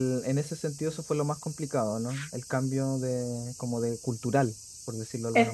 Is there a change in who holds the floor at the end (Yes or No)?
Yes